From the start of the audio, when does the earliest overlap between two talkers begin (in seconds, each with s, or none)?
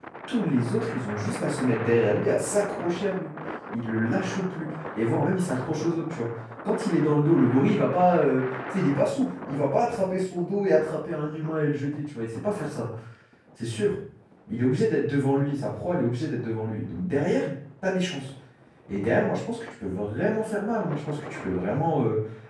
none